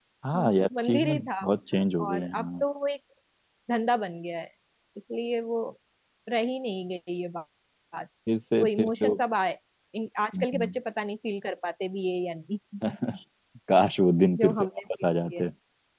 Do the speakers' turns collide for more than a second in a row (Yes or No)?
Yes